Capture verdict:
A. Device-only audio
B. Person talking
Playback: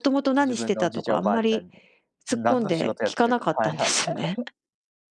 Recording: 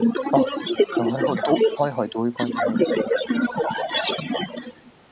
B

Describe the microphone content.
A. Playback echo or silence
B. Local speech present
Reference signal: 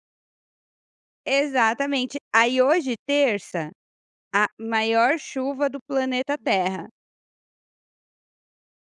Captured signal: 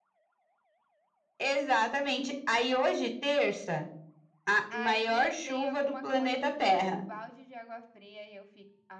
B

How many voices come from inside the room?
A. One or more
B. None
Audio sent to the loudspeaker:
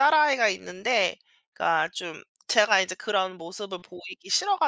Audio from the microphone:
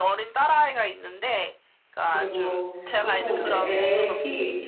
A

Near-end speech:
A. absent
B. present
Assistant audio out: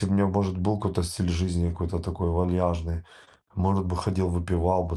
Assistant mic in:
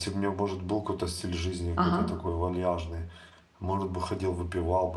B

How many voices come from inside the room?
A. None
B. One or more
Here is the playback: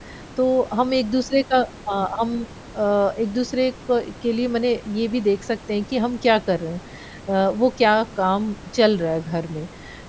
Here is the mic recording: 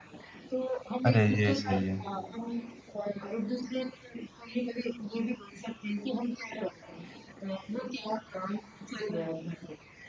B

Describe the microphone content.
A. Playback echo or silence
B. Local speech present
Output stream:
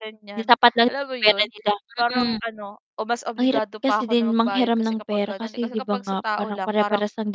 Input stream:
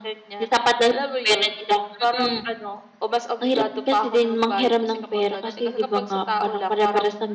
A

